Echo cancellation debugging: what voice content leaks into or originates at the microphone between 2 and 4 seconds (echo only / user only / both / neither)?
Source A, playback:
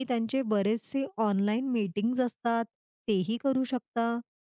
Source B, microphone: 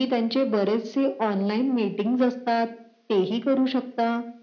echo only